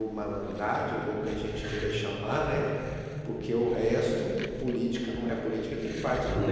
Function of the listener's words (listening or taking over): listening